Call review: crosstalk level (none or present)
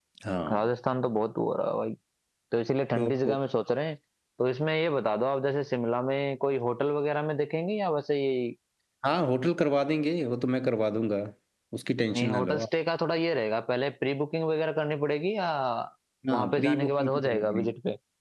present